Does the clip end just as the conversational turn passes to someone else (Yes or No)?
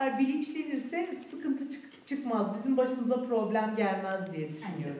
Yes